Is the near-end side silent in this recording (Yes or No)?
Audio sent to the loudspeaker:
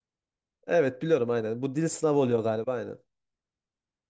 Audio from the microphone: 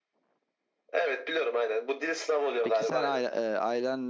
No